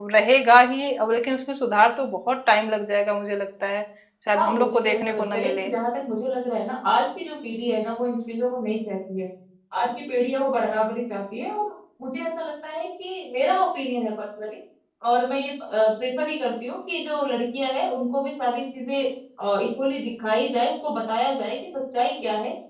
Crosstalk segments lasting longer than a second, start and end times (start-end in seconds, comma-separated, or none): 4.4-5.7